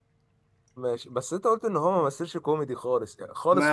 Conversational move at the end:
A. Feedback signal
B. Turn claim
B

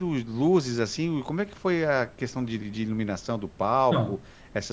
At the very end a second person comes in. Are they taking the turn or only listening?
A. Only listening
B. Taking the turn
A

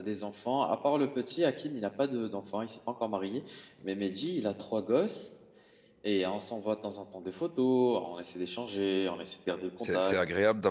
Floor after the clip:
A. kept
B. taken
B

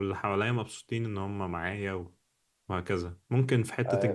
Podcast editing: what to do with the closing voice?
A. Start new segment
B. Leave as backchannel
A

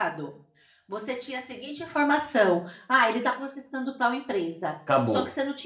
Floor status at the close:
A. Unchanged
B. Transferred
A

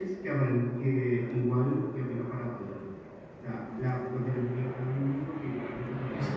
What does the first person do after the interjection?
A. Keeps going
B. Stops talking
B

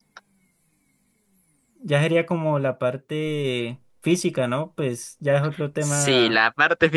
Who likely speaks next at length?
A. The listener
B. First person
A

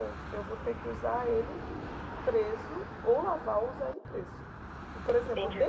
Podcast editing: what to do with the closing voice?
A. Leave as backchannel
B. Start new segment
A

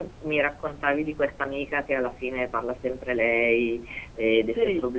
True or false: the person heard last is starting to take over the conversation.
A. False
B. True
A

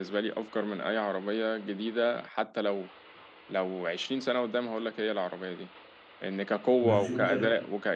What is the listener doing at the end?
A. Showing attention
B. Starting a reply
A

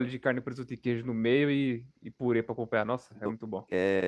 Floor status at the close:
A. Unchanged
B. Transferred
B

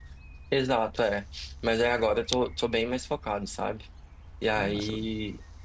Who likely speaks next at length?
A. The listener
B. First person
B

